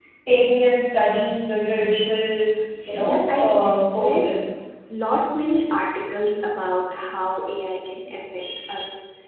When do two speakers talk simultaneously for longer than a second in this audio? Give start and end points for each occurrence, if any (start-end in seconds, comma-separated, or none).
2.9-4.3